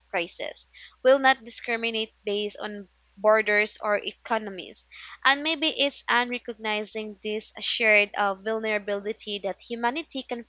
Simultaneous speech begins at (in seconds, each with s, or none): none